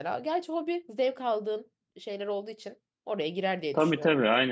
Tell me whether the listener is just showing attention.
No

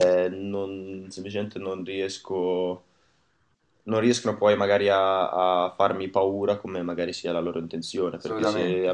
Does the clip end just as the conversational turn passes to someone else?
No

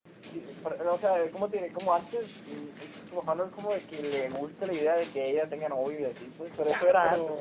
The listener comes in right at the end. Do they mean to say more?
Yes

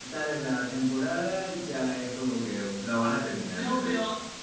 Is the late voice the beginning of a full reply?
Yes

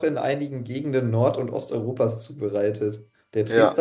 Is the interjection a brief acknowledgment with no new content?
Yes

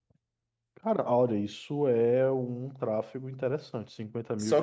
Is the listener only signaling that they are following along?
No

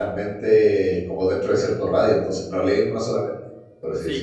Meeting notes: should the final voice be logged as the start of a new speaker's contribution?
Yes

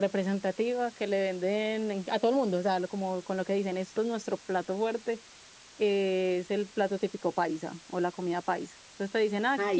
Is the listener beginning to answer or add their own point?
No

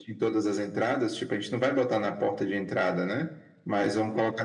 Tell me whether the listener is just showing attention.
Yes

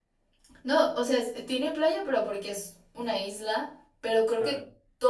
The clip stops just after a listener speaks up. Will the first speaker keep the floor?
Yes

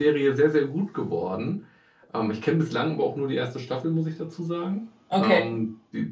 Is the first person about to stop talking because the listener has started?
No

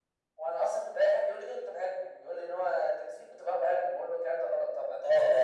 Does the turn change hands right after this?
Yes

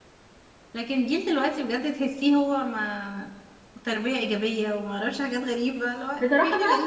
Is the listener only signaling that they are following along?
No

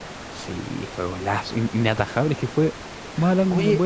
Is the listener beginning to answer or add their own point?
Yes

